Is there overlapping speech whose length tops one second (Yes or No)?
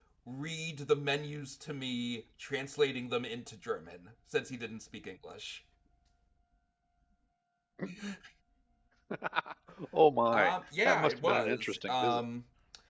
Yes